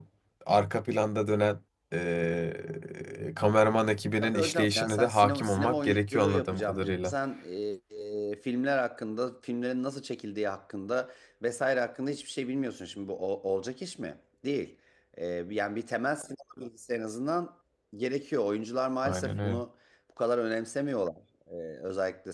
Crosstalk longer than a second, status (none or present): present